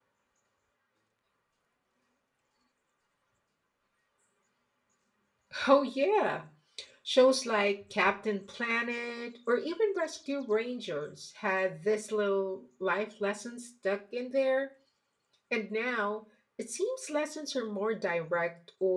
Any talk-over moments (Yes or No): No